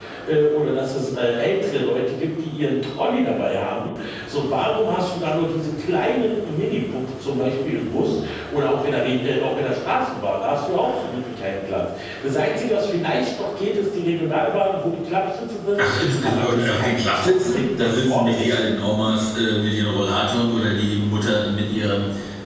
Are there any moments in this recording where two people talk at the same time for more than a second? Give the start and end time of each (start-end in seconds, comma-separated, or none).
15.8-18.6